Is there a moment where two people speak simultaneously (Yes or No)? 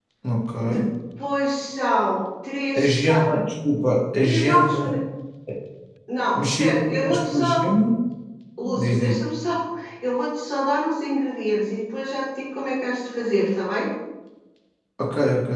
Yes